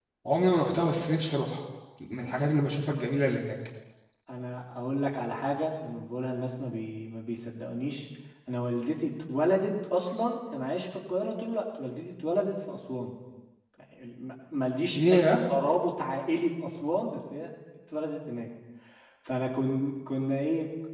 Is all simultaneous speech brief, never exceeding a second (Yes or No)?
Yes